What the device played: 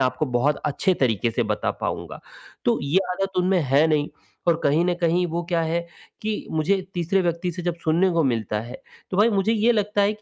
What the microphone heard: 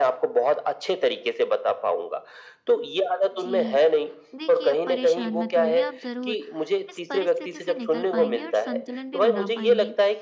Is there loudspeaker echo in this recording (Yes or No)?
Yes